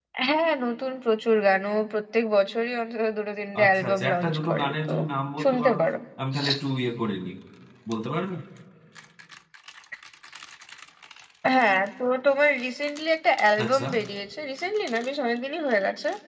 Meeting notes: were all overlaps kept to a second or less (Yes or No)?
No